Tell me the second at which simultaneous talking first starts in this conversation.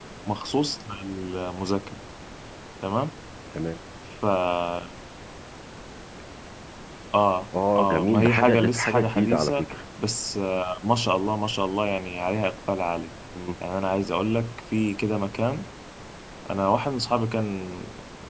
7.8 s

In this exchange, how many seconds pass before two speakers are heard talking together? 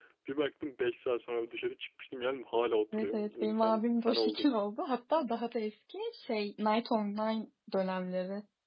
2.9 s

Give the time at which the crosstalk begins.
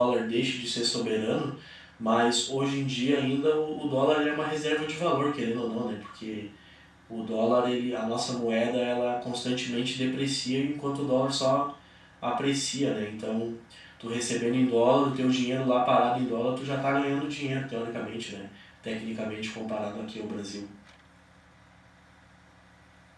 none

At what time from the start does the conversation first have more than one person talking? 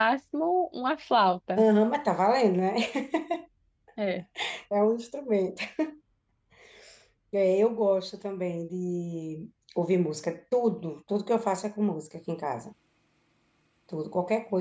none

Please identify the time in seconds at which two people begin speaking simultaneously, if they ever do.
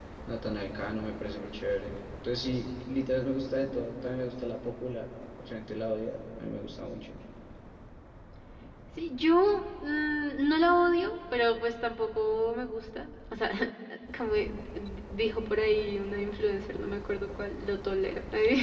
none

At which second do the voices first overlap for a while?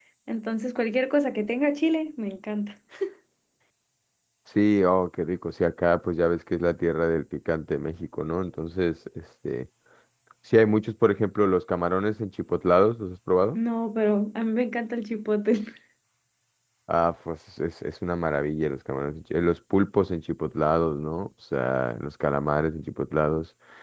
none

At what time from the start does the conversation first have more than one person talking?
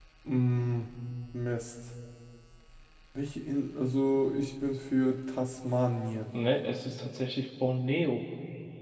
none

